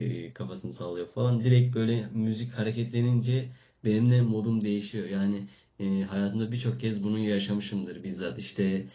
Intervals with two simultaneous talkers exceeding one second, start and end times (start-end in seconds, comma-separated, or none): none